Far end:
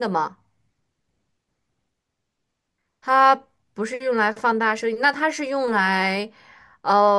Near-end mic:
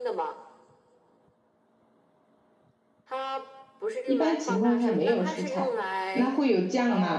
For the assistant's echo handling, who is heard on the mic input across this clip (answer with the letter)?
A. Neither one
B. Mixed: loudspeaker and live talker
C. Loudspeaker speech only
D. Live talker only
B